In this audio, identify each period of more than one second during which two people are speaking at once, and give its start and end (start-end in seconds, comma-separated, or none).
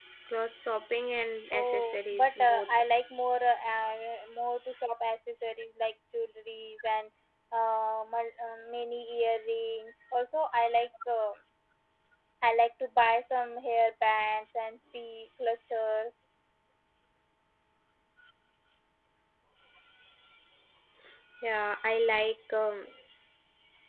1.5-2.8